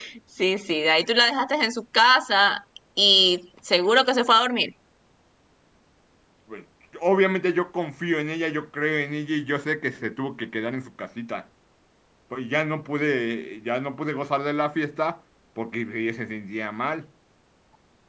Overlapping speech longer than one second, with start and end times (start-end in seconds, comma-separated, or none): none